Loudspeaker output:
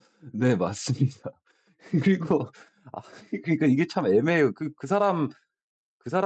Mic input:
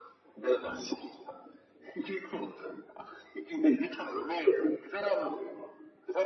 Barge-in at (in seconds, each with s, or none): none